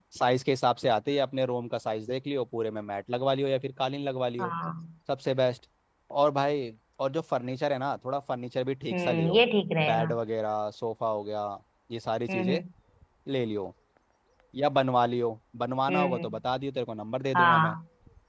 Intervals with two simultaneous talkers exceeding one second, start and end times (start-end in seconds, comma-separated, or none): none